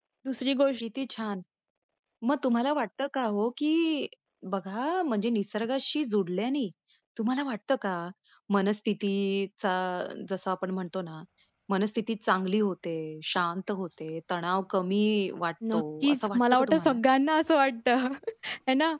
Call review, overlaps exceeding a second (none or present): present